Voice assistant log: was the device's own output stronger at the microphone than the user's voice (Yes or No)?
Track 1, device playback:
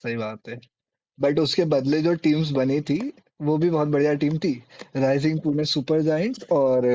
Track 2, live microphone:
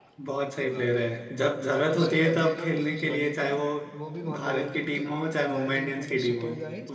No